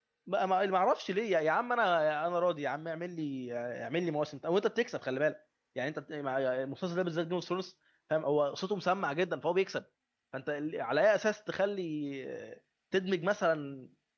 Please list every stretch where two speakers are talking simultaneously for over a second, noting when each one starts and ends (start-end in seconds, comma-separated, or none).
none